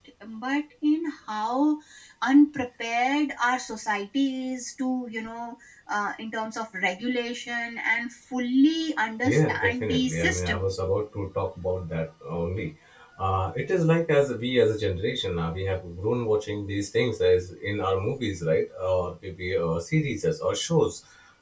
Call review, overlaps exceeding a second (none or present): present